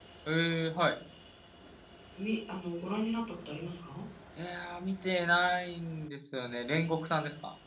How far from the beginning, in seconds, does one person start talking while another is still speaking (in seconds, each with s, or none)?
none